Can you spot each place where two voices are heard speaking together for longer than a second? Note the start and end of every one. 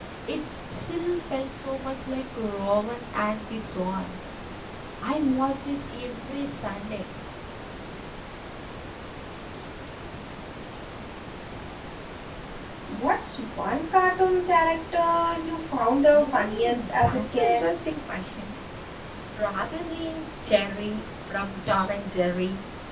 16.1-17.7

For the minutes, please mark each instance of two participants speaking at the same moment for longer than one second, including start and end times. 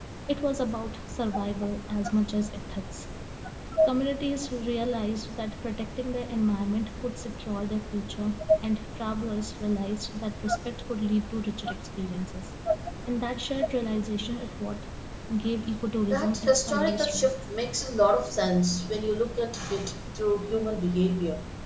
16.1-17.3

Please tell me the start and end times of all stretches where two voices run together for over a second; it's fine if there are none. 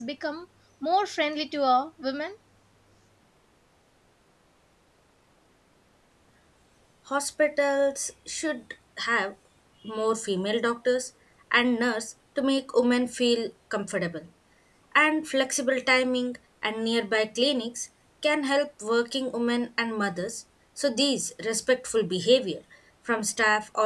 none

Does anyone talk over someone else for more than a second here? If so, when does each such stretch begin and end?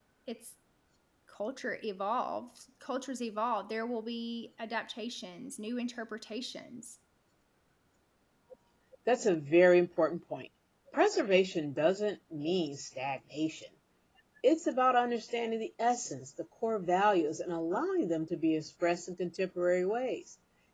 none

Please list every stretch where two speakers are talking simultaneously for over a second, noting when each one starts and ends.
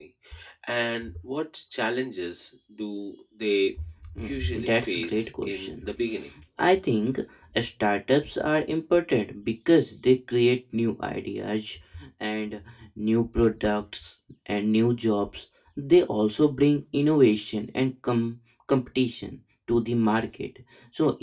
4.2-5.8

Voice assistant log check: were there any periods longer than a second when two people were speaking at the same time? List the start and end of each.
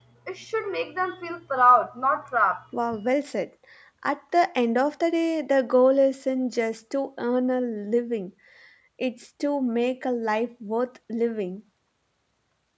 none

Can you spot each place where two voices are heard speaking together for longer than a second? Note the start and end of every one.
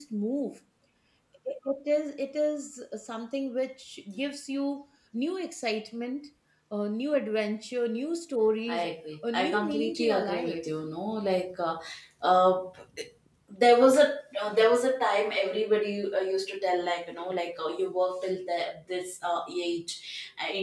9.3-10.7

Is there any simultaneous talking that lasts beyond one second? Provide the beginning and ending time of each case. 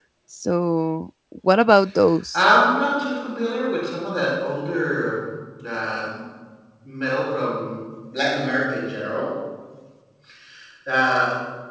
none

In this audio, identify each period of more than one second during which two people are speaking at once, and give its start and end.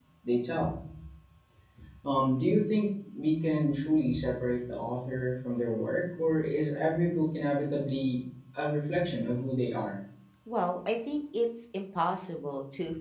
none

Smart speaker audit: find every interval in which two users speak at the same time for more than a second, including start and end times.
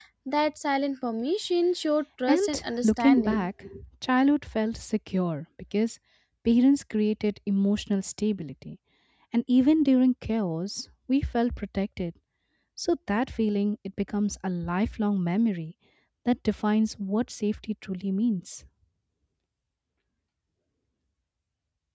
2.3-3.5

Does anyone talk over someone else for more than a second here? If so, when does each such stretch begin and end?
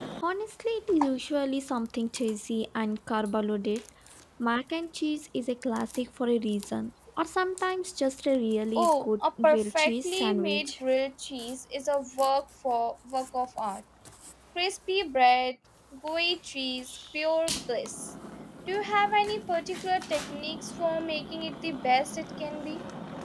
8.8-10.7

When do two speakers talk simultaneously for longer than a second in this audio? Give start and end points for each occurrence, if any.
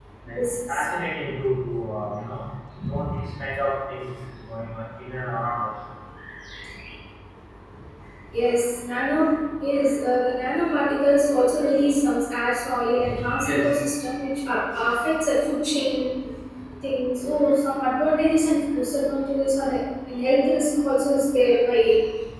none

